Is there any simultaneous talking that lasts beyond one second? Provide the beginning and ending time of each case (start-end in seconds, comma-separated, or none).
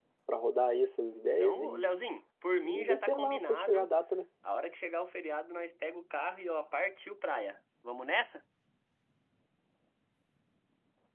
2.6-3.9